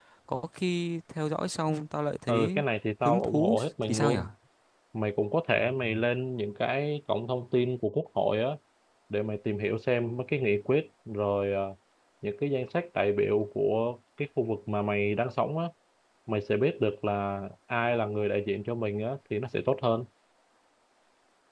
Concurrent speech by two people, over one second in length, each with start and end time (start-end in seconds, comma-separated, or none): 3.0-4.2